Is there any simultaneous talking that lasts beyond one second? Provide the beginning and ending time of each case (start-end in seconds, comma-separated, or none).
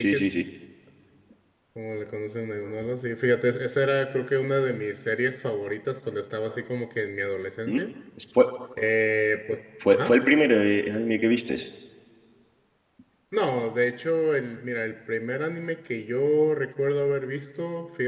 none